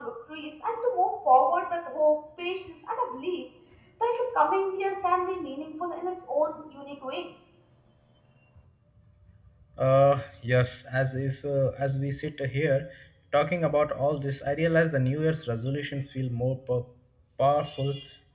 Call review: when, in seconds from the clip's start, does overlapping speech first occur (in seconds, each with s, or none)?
none